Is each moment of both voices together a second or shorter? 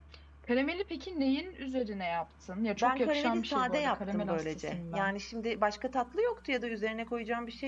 No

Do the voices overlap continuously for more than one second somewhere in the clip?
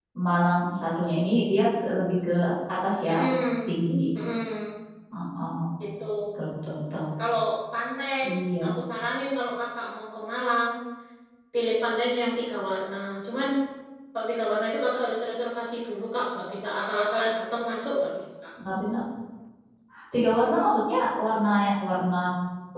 No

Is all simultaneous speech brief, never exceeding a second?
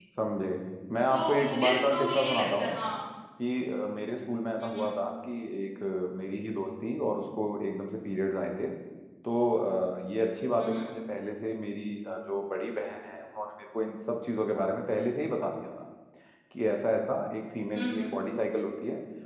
No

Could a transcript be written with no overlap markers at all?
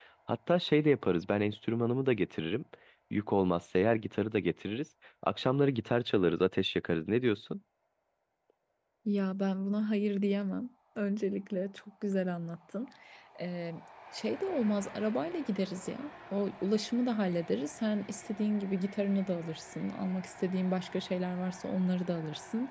Yes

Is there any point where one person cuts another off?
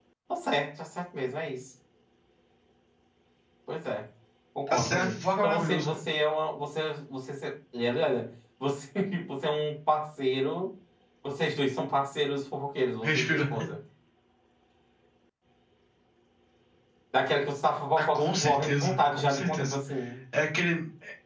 Yes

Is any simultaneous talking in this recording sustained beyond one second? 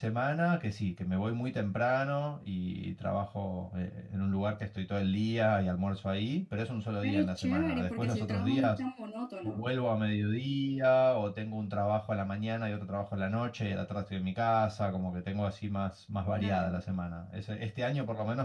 Yes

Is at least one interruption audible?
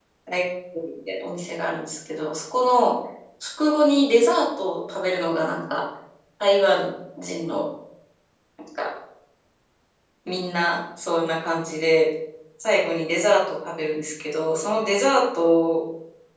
No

